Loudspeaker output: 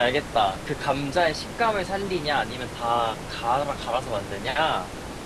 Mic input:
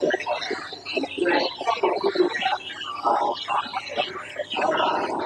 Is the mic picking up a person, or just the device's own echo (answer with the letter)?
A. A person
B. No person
B